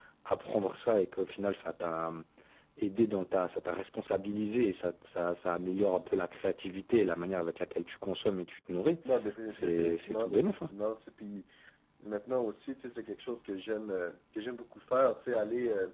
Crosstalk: present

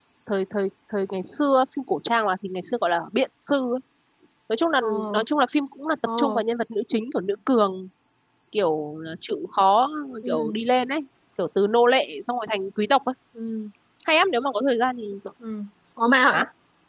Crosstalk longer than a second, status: none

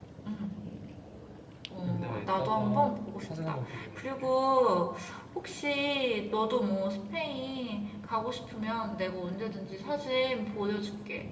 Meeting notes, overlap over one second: present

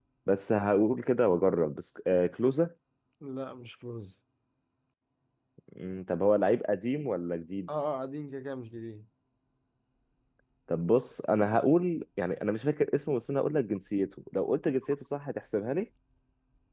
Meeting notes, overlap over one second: none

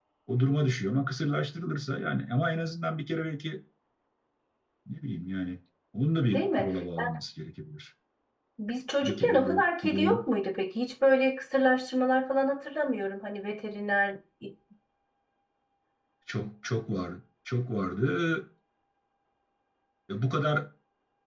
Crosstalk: present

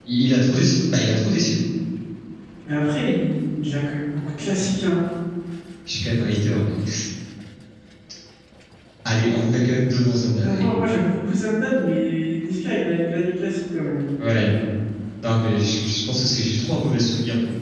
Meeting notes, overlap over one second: none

